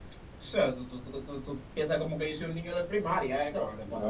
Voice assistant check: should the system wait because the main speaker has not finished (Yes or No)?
No